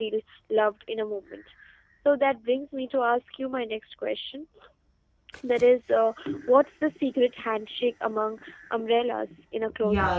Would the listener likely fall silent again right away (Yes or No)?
No